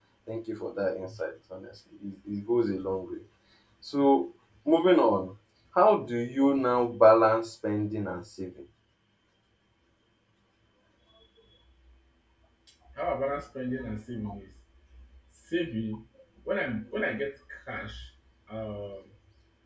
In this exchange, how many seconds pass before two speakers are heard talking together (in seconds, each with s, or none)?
none